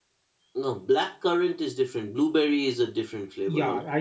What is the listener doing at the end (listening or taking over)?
taking over